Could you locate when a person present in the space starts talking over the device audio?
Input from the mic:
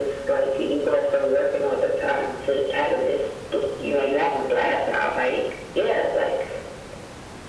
none

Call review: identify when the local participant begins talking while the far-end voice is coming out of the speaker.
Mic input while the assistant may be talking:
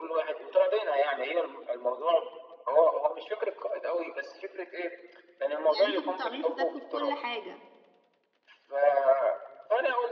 5.7 s

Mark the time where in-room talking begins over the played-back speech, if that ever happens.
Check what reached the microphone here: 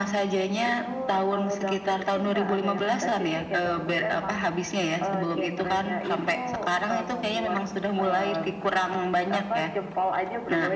none

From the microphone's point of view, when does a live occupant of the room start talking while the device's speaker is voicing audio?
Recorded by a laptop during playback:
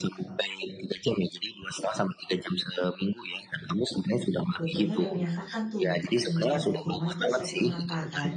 4.6 s

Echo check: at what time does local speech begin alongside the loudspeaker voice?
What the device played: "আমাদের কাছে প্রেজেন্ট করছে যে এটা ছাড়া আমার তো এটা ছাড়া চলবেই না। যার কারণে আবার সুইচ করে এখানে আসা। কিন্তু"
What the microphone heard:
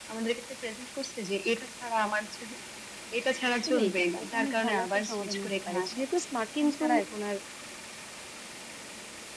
3.5 s

